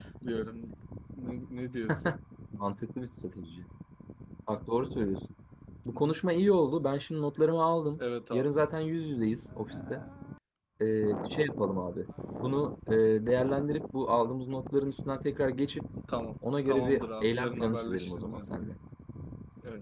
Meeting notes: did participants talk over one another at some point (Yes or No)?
Yes